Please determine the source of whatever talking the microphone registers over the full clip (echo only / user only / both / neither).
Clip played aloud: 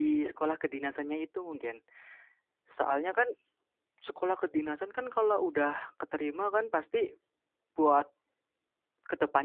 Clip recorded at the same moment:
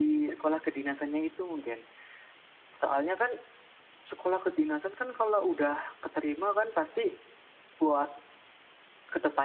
echo only